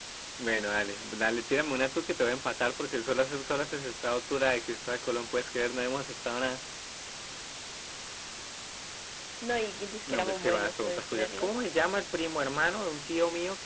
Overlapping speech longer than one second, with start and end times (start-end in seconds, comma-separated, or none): 10.1-11.5